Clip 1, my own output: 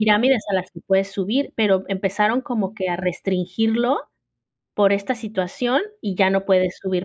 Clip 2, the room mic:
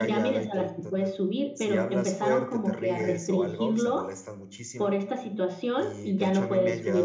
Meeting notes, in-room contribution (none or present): present